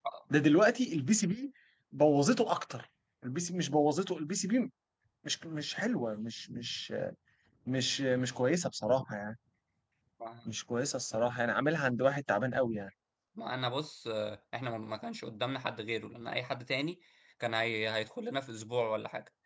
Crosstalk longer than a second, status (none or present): none